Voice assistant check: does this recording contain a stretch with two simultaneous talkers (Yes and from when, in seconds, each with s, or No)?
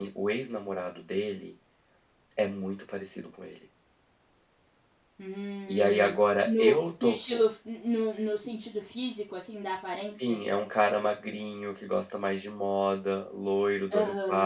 Yes, from 5.7 s